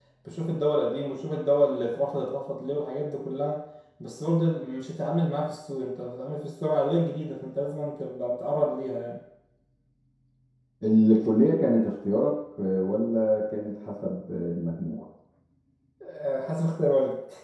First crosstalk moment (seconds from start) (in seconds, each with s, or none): none